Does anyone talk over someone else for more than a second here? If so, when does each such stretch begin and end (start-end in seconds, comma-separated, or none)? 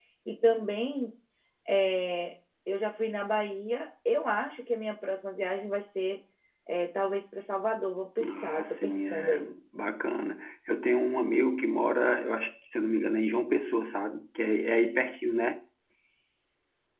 8.3-9.5